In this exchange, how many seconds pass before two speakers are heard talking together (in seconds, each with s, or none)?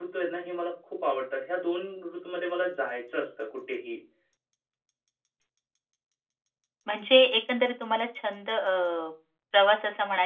none